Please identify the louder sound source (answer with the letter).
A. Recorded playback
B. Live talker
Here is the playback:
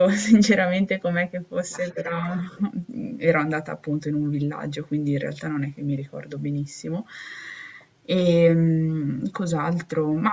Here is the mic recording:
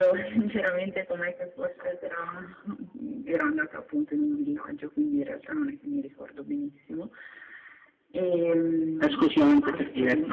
B